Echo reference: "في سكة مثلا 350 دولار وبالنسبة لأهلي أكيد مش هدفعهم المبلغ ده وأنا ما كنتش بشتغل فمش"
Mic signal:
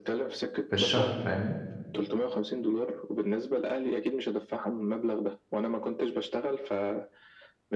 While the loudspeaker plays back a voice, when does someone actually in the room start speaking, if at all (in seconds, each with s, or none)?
0.7 s